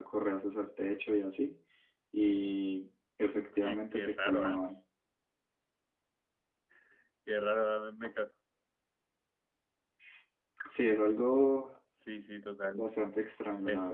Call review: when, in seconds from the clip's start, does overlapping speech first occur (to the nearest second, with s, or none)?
3 s